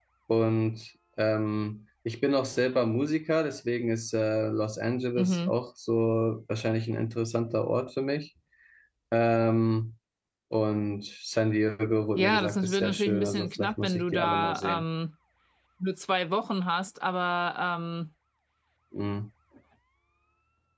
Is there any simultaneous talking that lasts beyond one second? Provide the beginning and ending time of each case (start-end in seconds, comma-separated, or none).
12.2-14.8